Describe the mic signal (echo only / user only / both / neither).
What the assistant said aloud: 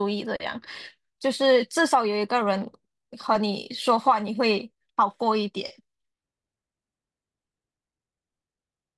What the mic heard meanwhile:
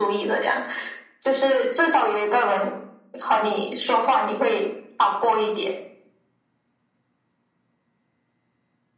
echo only